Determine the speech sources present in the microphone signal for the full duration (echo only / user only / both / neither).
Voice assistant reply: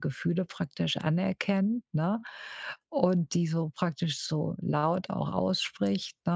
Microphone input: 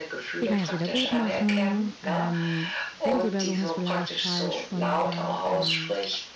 both